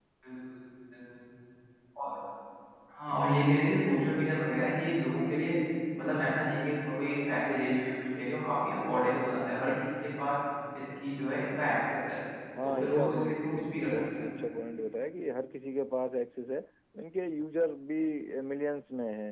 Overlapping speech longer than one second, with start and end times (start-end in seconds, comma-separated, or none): 12.6-14.2